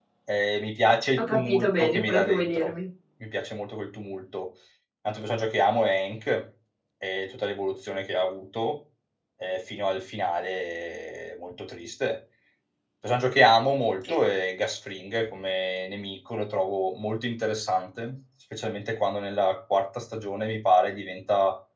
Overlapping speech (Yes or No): Yes